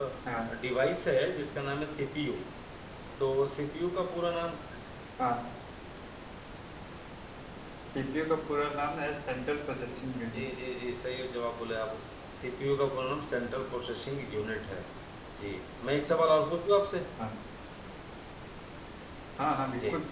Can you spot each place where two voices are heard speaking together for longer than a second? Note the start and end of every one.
none

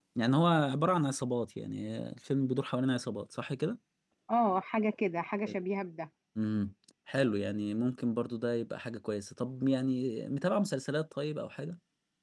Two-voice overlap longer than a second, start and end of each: none

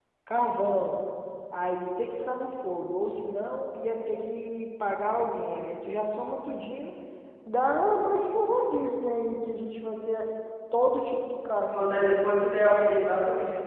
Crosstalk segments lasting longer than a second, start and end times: none

